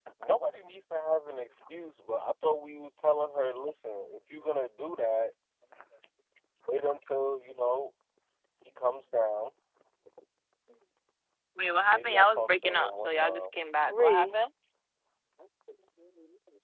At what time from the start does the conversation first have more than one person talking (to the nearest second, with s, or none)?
12 s